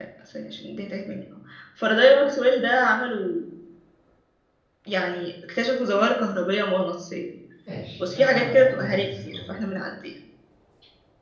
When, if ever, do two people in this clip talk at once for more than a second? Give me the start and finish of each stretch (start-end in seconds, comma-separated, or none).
8.0-9.5